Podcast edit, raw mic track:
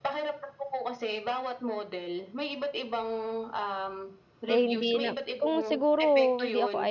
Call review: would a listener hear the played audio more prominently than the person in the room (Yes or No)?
No